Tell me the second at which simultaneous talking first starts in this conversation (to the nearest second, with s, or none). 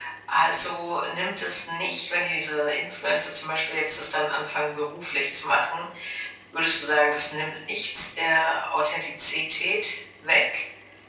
none